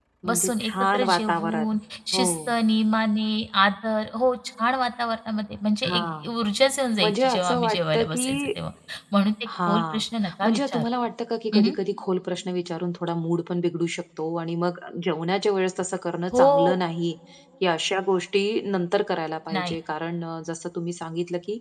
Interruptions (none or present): present